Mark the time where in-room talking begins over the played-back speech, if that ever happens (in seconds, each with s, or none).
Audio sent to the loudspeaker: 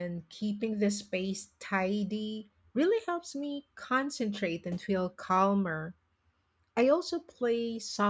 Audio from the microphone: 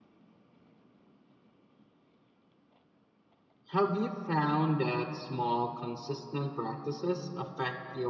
3.7 s